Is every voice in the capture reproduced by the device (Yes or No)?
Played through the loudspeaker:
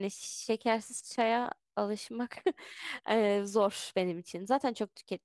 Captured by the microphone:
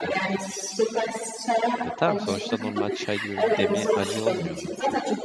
No